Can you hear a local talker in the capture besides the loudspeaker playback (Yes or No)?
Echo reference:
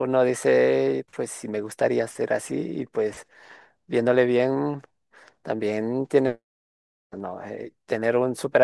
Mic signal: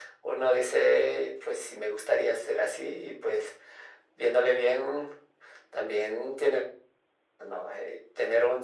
No